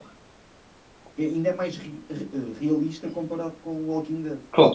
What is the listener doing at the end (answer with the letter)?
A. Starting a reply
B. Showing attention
A